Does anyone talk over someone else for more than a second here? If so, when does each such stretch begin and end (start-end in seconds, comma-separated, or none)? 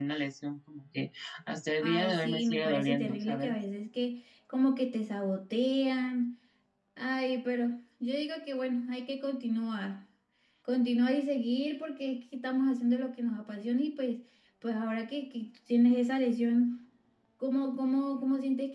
1.8-3.6